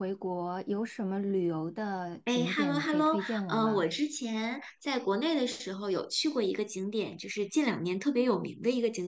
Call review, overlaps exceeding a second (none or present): present